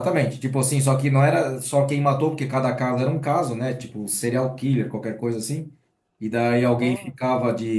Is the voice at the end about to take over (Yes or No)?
No